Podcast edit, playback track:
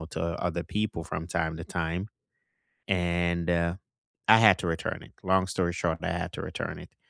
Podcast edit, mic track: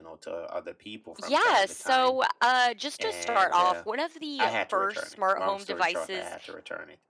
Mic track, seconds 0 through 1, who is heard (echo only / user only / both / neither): echo only